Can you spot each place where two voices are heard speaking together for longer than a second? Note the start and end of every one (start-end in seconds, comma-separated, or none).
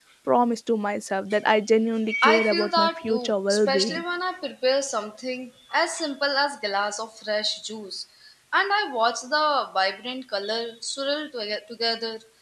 2.2-4.0